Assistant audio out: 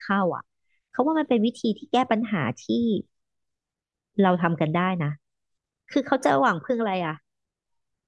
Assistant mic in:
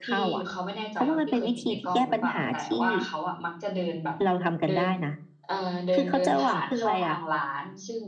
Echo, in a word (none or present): present